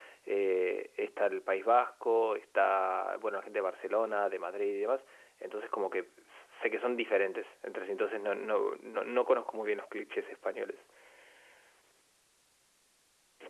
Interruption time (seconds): none

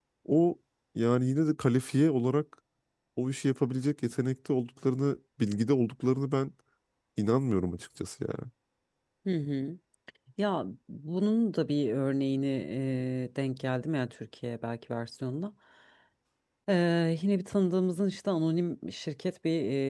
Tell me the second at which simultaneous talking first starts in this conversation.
none

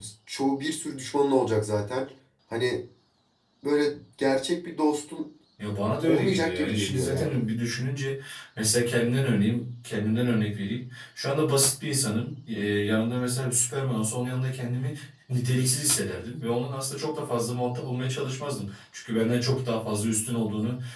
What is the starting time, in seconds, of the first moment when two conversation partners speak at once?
6.0 s

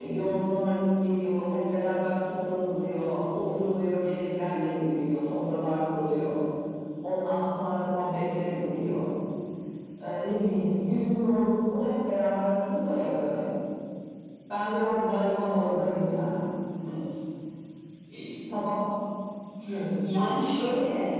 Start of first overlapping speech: none

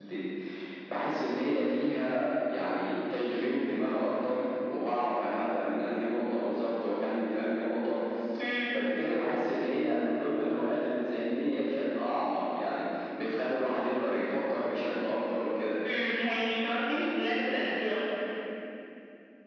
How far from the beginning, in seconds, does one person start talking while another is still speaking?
none

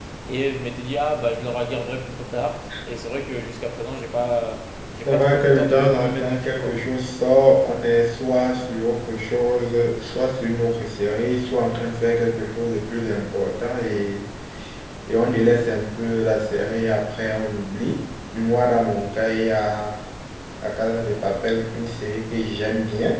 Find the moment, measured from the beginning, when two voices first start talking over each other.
5.0 s

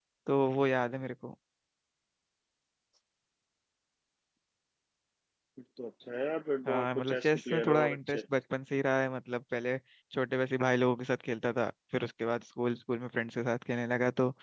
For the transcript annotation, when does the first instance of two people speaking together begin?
6.7 s

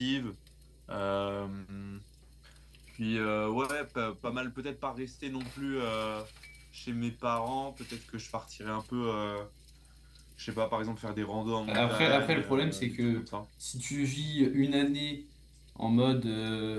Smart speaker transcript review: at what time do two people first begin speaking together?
11.7 s

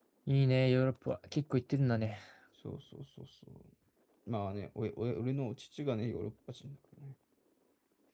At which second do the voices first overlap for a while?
none

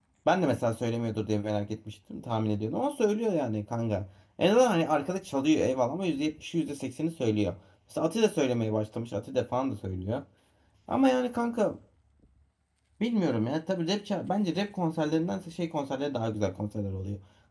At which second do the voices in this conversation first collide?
none

